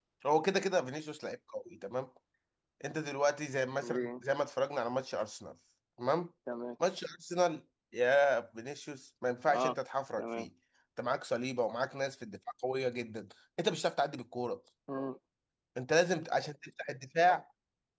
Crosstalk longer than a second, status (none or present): none